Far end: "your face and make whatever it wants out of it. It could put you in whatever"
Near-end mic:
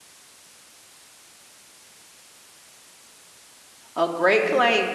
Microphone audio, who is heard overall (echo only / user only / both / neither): user only